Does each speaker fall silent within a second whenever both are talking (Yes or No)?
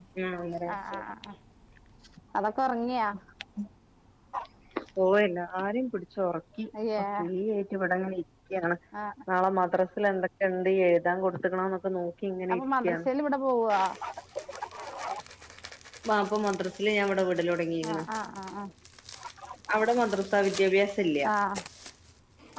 Yes